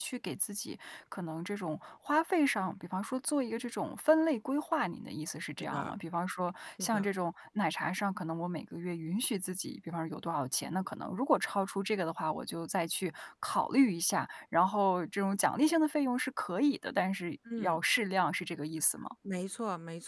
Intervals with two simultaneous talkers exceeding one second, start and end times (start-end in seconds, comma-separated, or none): none